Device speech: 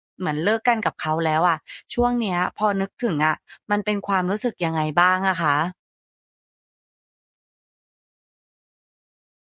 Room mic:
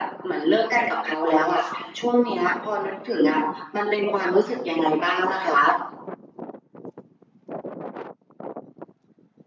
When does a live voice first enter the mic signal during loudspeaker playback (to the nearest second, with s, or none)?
none